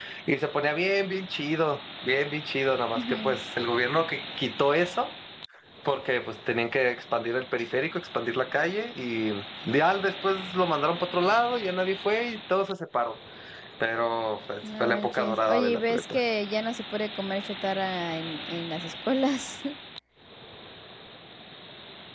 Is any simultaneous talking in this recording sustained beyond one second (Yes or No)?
Yes